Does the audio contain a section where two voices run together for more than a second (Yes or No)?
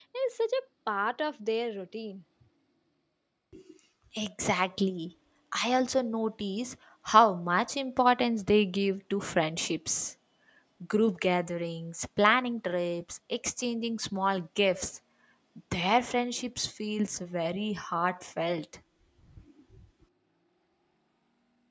No